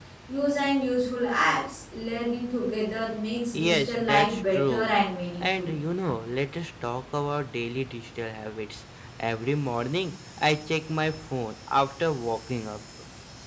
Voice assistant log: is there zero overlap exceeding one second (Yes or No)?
No